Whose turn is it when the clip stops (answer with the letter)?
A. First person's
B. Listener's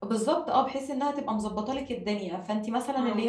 A